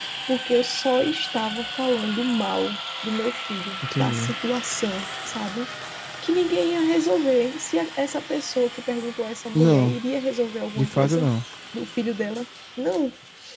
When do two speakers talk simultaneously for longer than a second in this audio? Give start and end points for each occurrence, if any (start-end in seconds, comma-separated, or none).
none